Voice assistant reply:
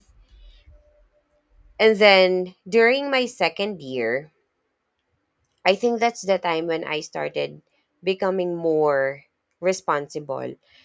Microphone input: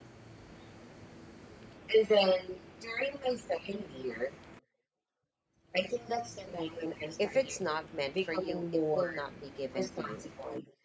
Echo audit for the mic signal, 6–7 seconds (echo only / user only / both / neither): echo only